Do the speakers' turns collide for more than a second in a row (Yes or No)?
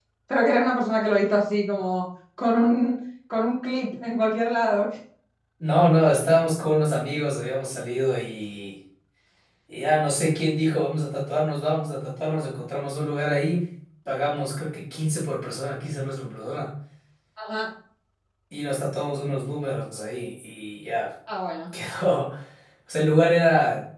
No